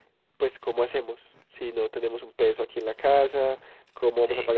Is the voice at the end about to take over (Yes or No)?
No